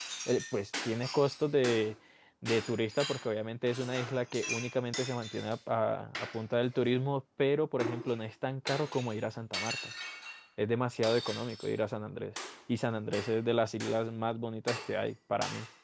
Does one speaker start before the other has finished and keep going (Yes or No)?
No